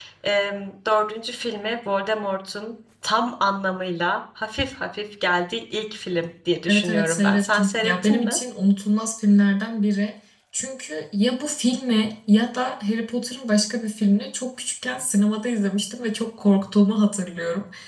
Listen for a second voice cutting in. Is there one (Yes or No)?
Yes